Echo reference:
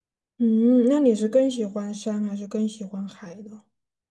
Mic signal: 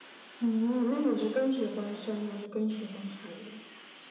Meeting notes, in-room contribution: none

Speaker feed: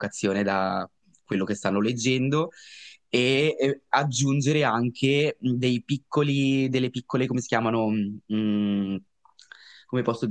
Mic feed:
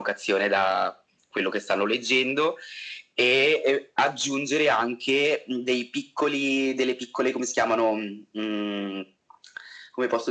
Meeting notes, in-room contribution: none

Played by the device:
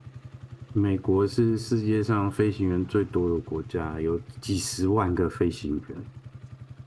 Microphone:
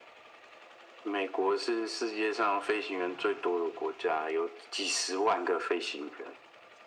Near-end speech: none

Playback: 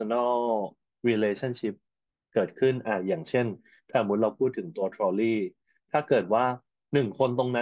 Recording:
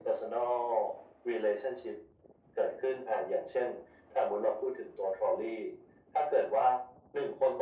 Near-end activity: none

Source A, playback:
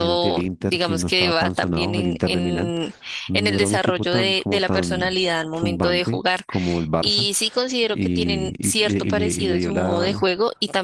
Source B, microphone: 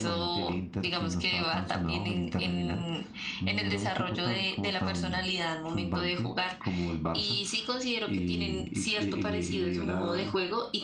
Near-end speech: none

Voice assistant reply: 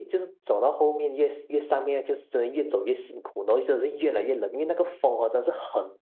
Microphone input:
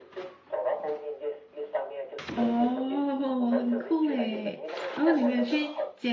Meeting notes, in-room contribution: present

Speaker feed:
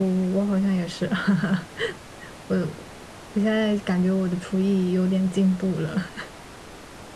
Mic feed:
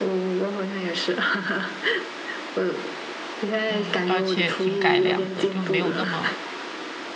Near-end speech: present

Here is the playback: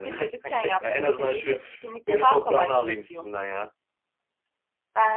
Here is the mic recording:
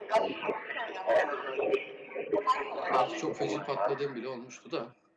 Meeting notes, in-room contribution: present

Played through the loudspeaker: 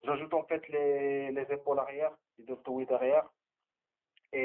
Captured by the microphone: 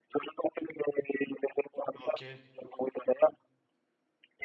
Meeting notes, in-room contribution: present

